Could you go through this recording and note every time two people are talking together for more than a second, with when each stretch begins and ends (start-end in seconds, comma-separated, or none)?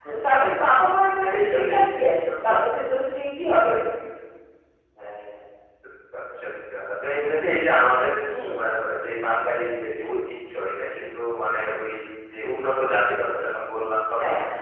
1.2-2.6